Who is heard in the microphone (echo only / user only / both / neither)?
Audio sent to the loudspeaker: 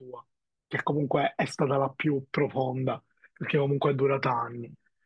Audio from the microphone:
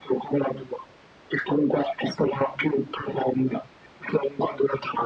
echo only